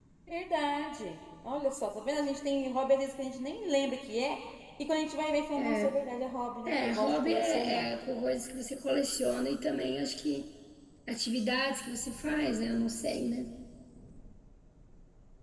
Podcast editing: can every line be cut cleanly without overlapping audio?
No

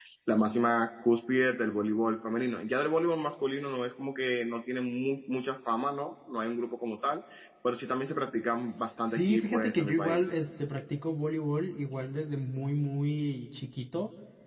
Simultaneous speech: Yes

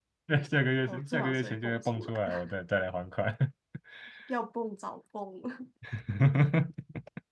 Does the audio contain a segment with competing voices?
Yes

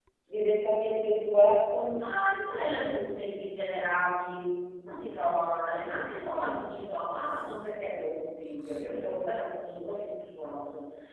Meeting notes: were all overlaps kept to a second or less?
Yes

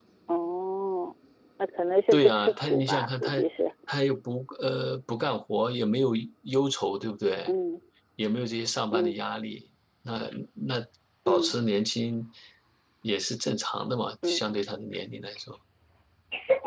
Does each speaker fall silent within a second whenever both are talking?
No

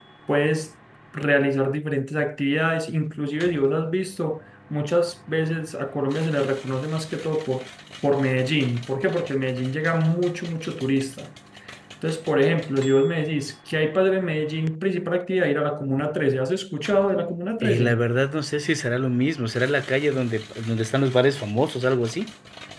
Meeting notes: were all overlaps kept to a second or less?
Yes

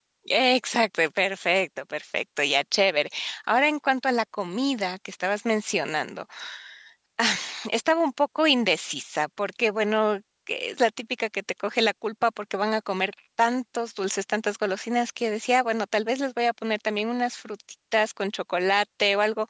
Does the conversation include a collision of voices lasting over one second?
No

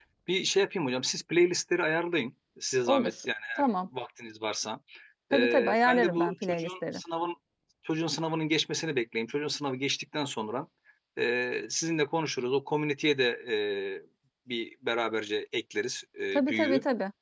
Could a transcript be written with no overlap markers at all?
No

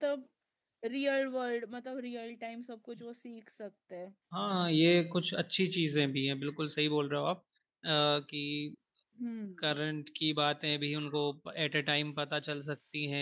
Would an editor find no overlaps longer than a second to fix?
Yes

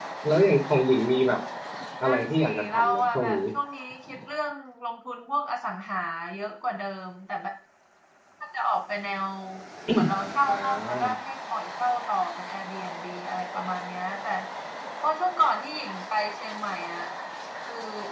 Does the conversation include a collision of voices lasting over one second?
Yes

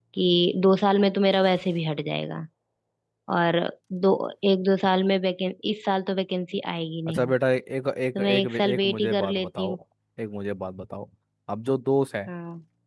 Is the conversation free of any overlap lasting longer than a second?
No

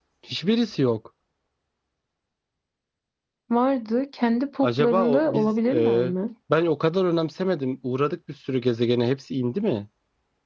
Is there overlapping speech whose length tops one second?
Yes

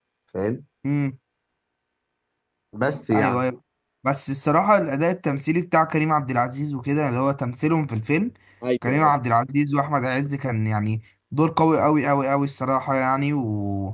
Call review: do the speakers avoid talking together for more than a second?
Yes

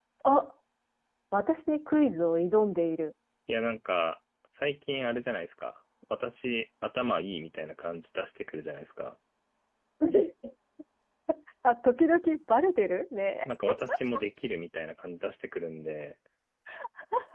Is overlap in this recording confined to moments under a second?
Yes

